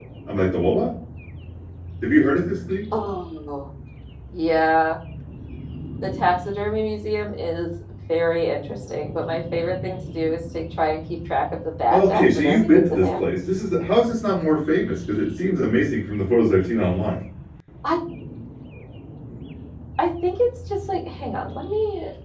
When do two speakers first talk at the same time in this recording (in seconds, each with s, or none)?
11.9 s